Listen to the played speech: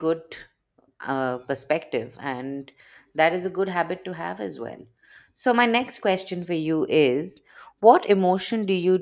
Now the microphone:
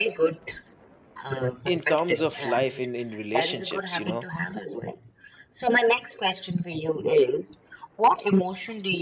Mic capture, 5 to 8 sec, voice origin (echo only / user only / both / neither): echo only